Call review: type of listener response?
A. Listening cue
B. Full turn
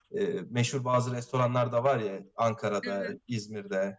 A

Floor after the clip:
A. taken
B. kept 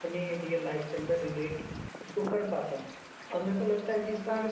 B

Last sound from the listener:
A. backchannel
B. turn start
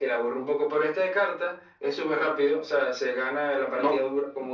A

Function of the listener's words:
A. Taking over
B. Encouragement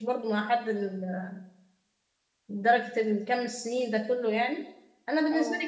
B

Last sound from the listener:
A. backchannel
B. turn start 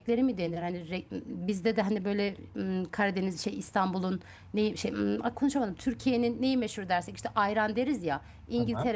A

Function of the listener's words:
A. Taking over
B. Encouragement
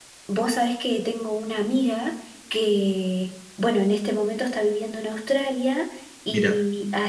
B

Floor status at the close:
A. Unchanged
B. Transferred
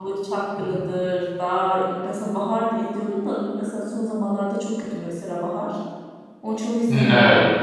B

